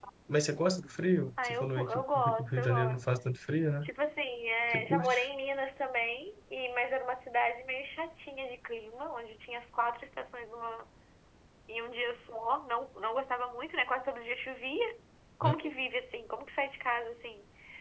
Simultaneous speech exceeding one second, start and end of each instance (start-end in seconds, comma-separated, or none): 1.4-3.1